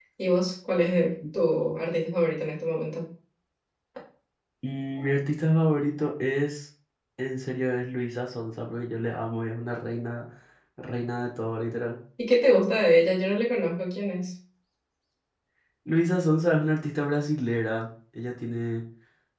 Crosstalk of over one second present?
No

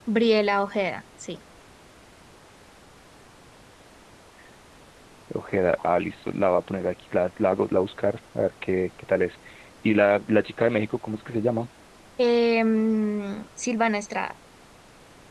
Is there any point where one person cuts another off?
No

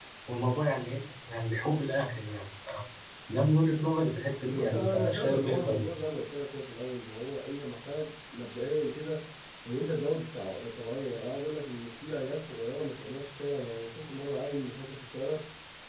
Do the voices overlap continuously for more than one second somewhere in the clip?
Yes, from 4.5 s

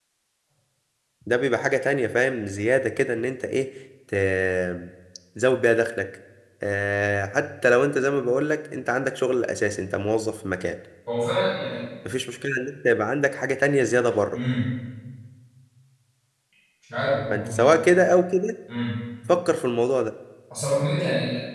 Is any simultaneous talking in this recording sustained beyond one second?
No

